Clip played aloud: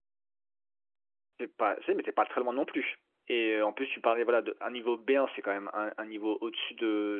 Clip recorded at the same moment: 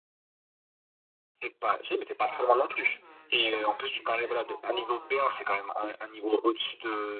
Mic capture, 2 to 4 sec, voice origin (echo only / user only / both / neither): both